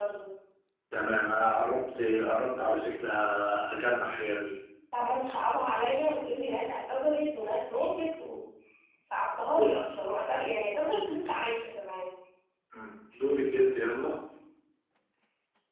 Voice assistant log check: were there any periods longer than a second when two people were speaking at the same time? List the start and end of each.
none

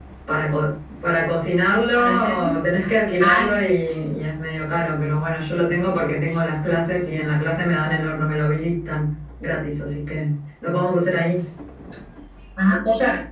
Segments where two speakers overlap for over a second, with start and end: none

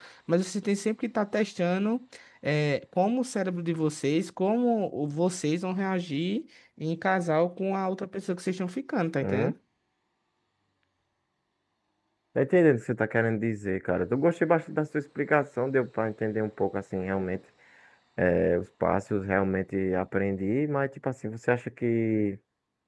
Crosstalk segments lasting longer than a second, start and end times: none

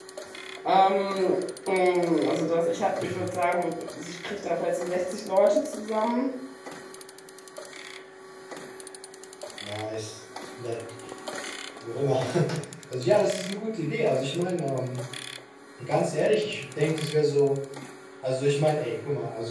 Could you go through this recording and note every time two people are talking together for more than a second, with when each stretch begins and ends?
none

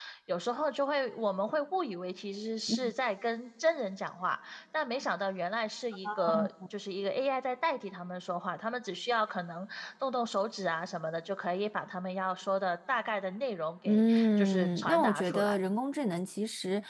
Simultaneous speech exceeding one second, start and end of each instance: 13.9-15.6

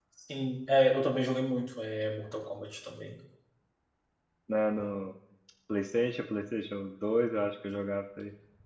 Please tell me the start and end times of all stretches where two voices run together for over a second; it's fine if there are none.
none

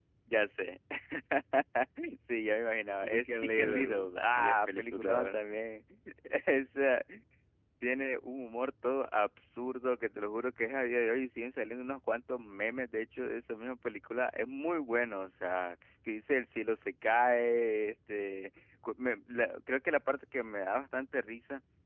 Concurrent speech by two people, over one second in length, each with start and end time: 3.0-5.4

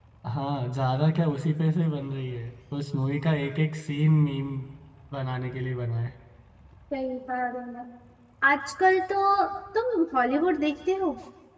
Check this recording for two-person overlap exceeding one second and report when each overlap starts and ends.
none

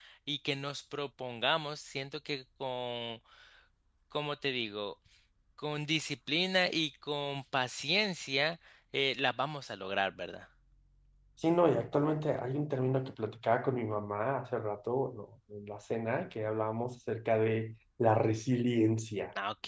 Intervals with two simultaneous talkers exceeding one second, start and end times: none

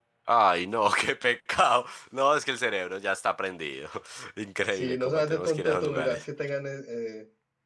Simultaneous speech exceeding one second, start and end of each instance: 4.7-6.2

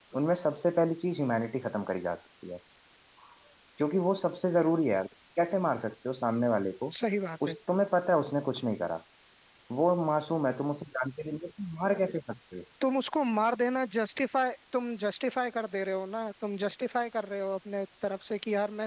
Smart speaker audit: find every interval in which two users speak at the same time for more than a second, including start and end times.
none

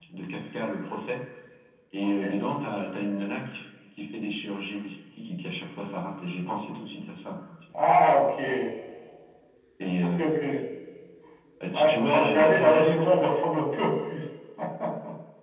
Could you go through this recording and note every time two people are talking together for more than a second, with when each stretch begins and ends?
11.7-13.1

